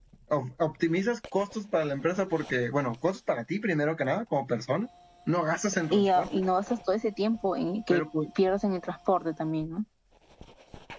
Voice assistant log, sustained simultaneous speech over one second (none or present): none